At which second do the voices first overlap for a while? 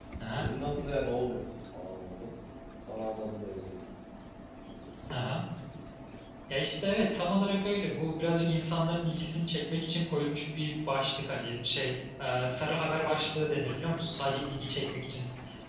none

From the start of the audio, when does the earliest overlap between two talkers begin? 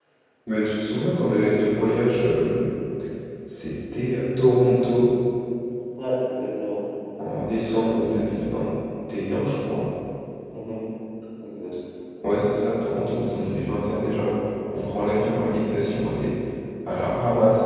none

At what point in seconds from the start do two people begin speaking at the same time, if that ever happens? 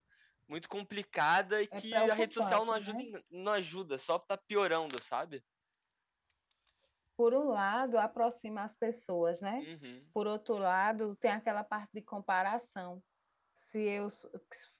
1.7 s

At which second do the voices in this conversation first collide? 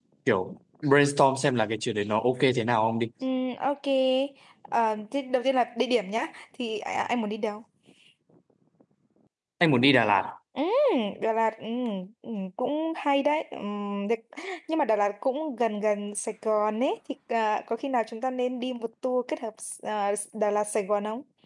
none

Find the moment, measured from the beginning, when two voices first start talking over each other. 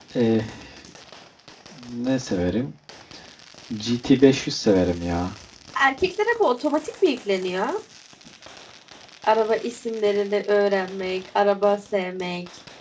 none

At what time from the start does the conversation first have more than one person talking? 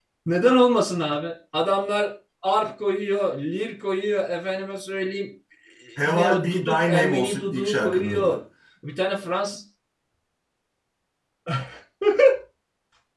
6.0 s

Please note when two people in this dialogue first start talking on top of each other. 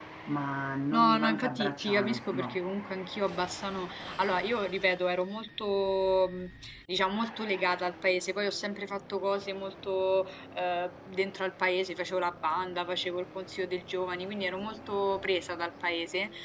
0.9 s

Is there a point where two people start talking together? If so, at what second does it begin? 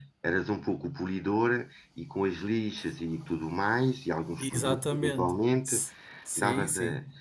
4.4 s

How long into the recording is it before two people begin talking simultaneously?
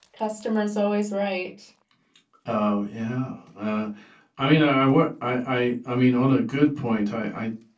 none

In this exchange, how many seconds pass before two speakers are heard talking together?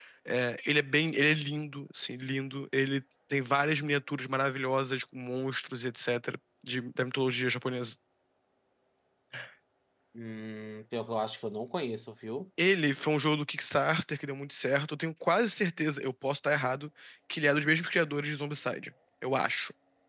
none

